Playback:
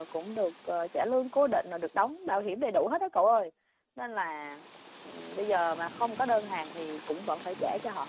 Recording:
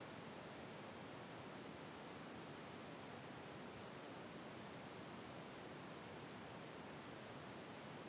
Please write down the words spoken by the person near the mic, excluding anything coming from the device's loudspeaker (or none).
none